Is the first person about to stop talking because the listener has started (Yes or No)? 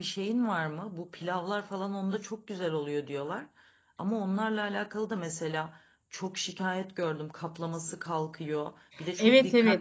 No